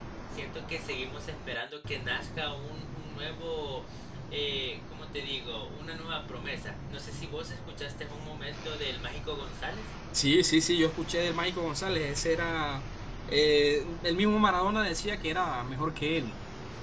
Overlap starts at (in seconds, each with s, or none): none